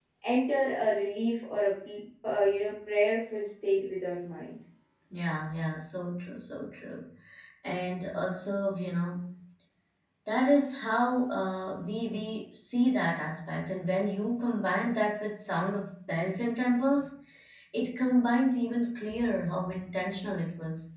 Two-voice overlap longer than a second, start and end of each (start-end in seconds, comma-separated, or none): none